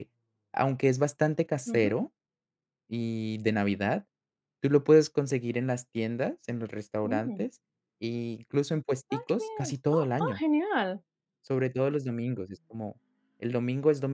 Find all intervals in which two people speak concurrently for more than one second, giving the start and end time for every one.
9.1-10.4

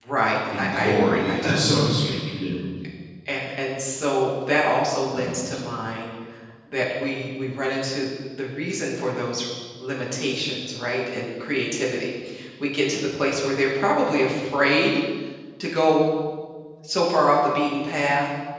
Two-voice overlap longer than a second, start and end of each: 0.6-2.1

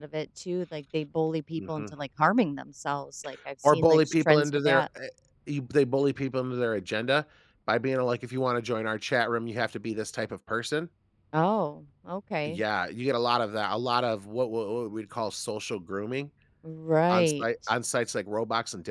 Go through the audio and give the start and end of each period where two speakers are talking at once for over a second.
3.6-4.8

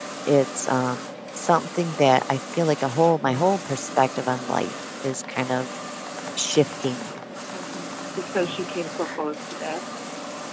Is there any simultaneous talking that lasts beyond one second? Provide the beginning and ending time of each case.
none

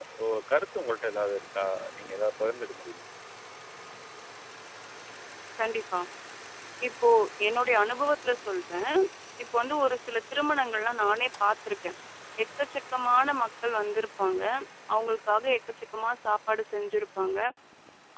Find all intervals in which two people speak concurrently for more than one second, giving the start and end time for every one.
none

